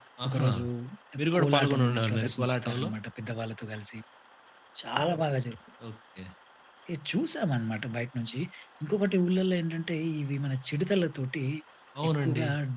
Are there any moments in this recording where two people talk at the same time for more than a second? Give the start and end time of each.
1.4-2.9

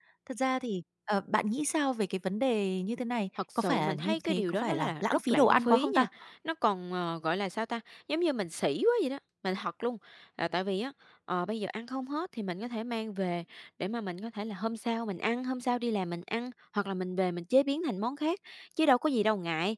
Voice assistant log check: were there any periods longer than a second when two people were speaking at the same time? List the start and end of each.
3.6-6.0

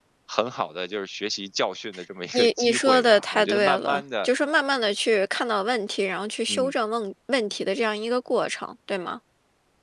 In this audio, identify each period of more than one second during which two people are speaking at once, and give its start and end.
2.3-4.3

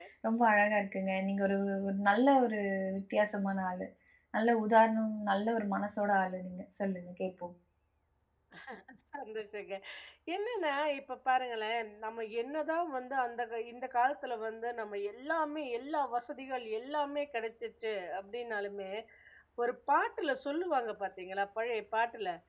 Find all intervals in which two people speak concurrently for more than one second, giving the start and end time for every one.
none

